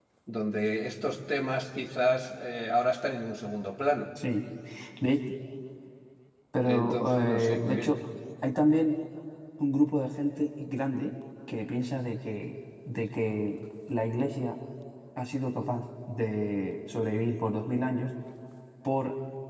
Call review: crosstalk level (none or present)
present